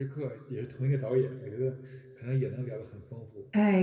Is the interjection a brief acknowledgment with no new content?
No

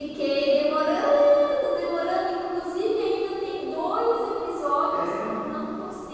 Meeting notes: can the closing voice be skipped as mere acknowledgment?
Yes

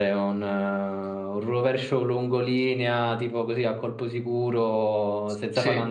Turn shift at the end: No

